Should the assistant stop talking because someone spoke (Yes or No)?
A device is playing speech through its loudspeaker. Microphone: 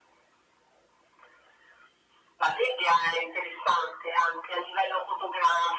No